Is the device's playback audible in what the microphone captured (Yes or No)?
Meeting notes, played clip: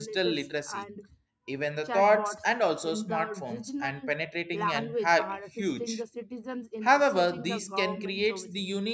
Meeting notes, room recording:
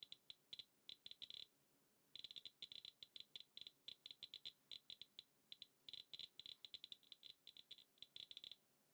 No